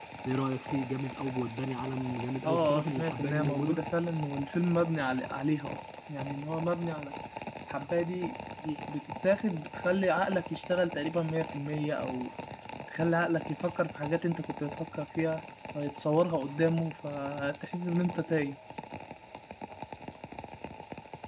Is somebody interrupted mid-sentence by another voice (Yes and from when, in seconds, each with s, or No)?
Yes, from 2.4 s